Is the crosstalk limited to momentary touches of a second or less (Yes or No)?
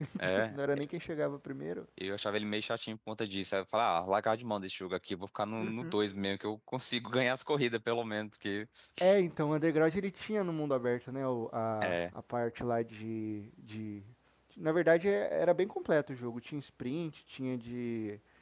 Yes